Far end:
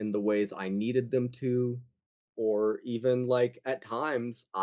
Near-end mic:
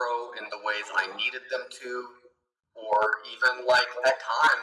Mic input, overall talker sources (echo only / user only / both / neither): echo only